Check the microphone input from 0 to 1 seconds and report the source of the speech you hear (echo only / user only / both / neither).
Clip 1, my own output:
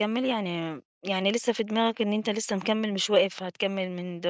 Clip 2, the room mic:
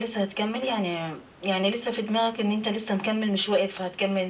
echo only